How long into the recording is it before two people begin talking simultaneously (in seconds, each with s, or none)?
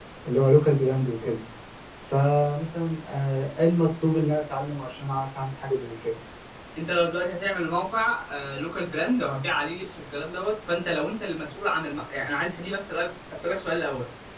none